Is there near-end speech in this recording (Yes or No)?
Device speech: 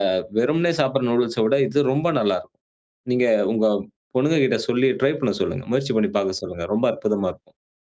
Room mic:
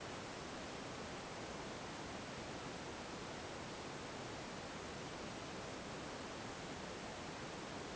No